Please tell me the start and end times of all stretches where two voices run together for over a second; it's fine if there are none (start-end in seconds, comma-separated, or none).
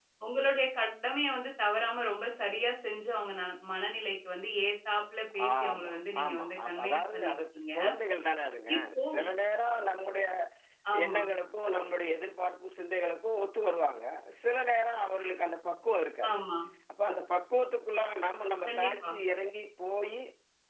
5.6-7.7